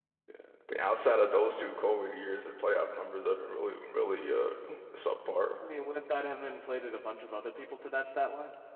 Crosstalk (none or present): none